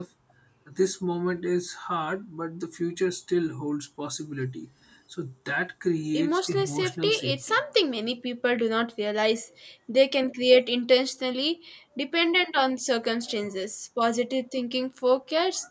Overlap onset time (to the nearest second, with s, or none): 6 s